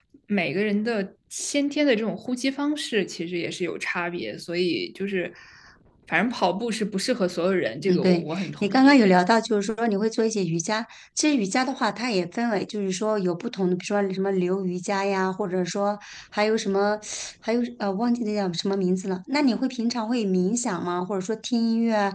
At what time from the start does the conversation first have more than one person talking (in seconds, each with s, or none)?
7.9 s